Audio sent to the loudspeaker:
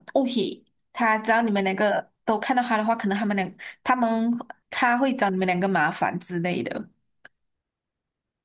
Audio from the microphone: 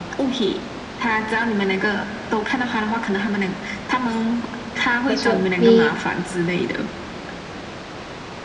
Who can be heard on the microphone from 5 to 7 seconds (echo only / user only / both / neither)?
both